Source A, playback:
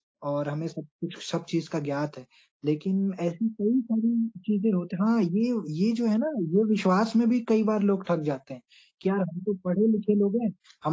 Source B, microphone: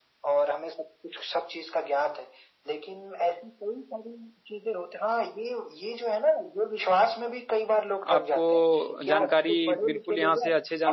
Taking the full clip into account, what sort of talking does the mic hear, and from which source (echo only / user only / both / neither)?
both